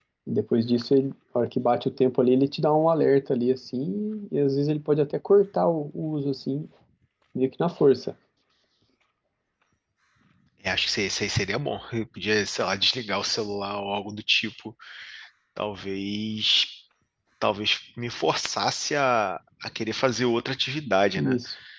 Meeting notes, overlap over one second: none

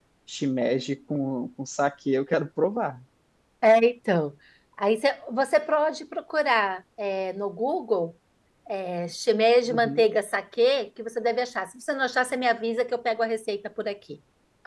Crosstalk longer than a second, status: none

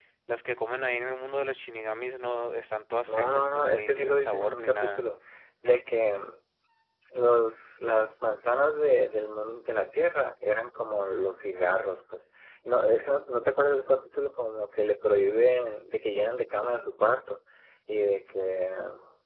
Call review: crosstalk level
present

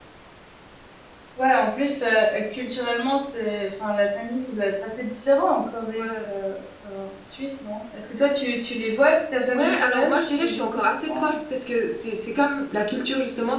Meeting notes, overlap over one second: present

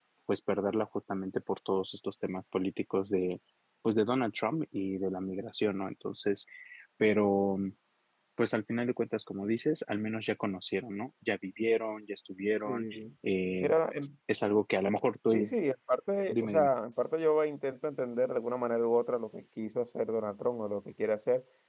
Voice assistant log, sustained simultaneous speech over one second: none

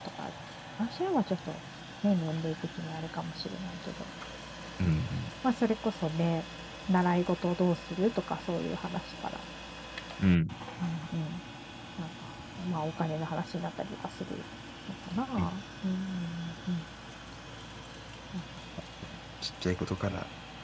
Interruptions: none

